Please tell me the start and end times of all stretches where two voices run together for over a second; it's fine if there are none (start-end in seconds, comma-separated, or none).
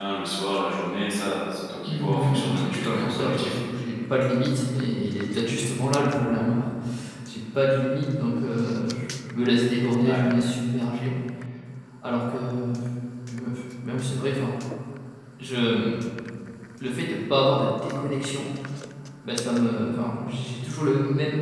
1.9-3.6